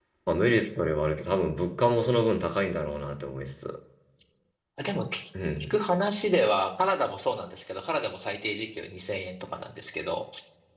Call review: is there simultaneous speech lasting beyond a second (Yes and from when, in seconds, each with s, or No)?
No